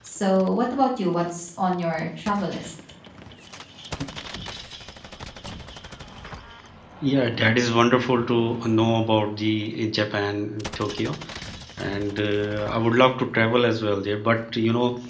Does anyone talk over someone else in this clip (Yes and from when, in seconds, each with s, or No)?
No